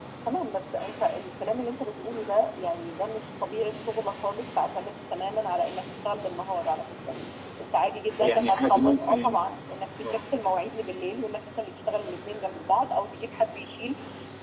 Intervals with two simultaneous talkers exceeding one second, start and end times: 8.2-9.6

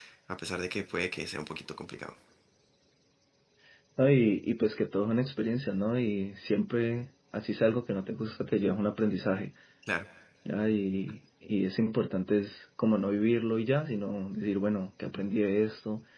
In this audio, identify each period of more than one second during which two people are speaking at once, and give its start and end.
none

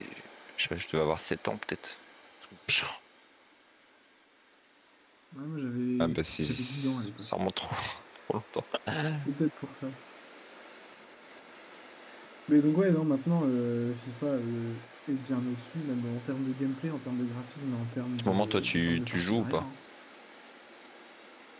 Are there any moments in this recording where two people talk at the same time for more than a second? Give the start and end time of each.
6.0-7.3, 18.2-19.6

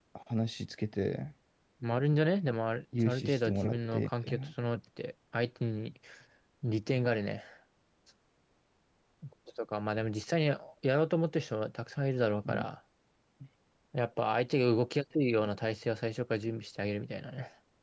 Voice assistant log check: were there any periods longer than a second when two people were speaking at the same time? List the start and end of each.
3.0-4.5

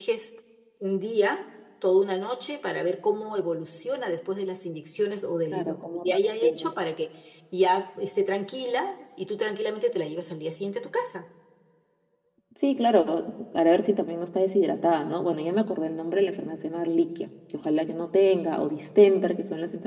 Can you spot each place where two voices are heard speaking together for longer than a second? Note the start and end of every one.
5.5-6.7

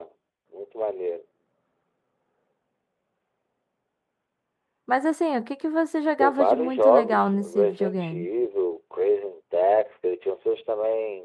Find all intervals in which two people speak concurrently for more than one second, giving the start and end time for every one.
6.2-8.3

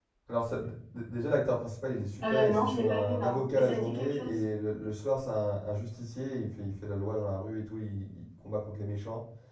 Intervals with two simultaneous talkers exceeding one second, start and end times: 2.2-4.3

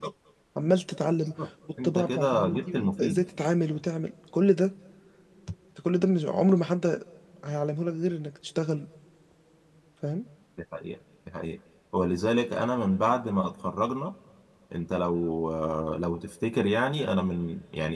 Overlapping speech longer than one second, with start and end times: 1.8-3.2

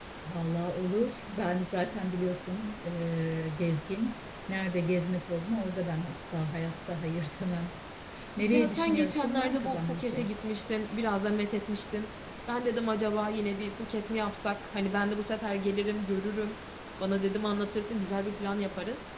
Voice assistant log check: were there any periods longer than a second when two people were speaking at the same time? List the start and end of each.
8.5-10.2

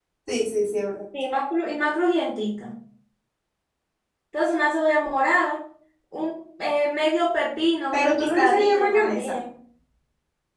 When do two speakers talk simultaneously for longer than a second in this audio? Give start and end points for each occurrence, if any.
7.9-9.4

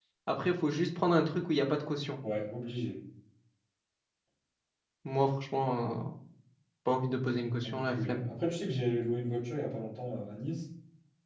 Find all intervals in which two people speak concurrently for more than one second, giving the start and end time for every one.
none

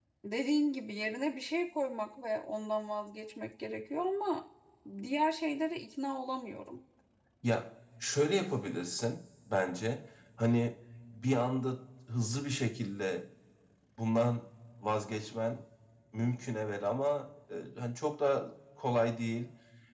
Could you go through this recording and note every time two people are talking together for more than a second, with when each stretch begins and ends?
none

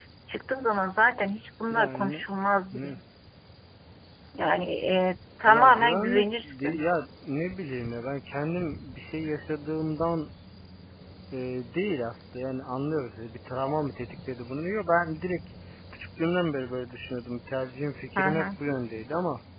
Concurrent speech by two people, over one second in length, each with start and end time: 5.5-6.8

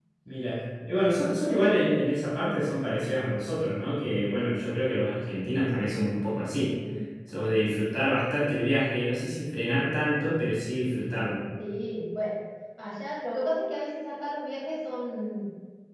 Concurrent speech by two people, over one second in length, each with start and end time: none

